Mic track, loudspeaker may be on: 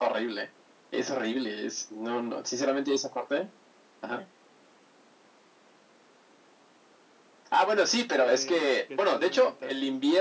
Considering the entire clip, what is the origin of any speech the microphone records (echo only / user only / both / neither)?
both